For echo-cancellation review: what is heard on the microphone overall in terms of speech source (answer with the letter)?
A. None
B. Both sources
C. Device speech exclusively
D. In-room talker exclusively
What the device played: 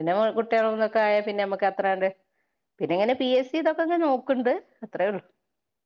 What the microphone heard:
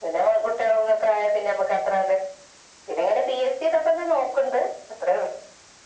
C